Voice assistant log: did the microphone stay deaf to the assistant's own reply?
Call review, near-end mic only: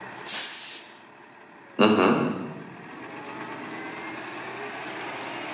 Yes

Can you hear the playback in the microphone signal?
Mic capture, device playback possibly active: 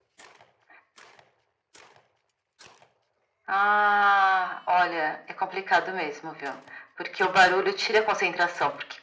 Yes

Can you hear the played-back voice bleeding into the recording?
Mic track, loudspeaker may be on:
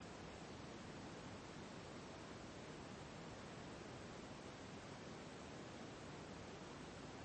No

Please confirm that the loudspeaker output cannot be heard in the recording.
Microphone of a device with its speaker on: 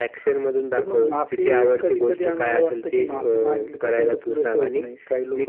No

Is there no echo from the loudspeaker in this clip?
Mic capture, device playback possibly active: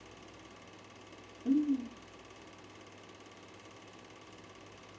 Yes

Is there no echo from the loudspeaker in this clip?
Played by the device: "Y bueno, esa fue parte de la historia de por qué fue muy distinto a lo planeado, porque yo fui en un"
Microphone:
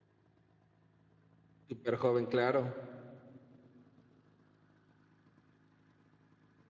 Yes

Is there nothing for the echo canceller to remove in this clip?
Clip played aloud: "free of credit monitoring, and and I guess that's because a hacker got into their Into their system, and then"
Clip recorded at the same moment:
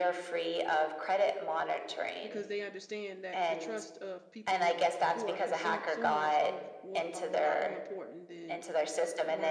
No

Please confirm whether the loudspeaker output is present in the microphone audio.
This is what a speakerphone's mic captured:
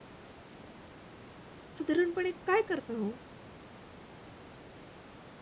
No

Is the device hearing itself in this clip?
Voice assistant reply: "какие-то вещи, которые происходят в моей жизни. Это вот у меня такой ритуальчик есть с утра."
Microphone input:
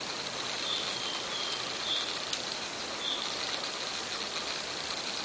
No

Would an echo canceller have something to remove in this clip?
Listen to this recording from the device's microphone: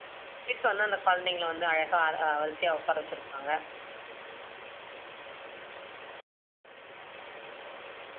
No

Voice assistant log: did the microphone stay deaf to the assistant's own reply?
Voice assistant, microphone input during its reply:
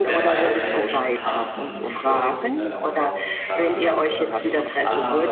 No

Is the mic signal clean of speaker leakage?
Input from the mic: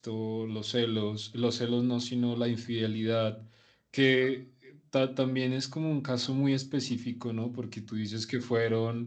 Yes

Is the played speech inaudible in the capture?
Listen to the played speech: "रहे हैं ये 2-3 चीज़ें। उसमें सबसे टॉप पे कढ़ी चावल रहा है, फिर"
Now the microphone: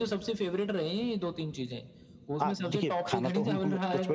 No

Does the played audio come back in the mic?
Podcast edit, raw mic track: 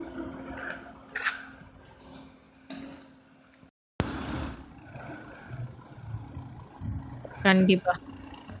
No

